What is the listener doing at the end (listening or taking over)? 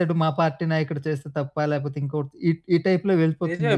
taking over